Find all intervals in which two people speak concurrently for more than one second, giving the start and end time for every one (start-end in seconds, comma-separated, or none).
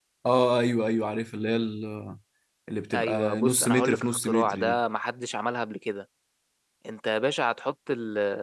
2.9-4.8